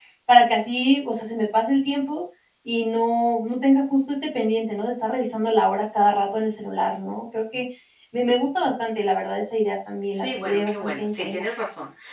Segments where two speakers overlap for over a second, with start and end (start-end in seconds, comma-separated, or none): 10.1-11.5